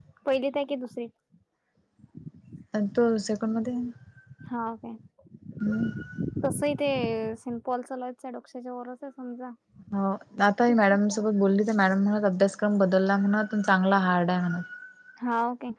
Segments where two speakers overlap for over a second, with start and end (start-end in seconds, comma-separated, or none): none